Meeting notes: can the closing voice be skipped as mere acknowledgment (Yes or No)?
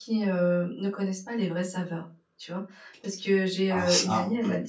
Yes